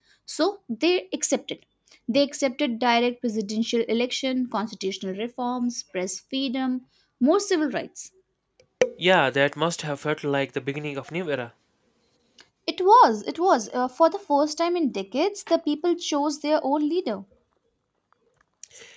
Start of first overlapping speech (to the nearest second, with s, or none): none